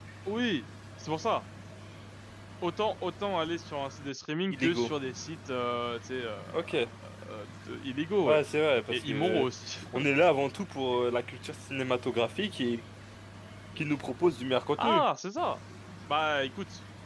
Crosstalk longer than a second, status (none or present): none